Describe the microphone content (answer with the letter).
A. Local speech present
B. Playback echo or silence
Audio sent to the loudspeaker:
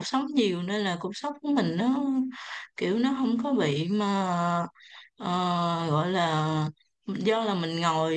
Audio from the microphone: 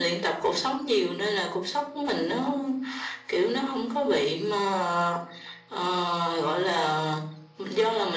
B